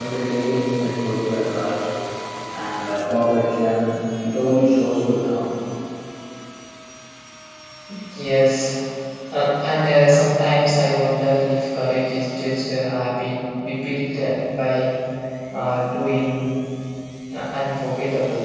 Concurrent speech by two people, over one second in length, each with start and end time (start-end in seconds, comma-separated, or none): none